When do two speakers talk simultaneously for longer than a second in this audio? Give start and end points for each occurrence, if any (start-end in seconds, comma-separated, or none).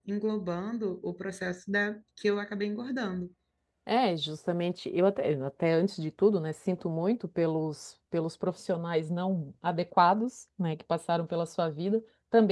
none